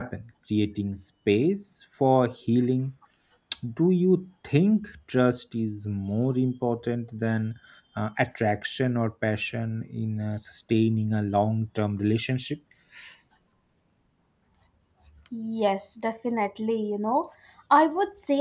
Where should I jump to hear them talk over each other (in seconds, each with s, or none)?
none